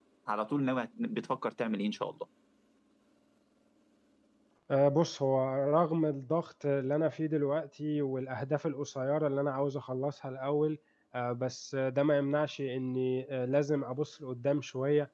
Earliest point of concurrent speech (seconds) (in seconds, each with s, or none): none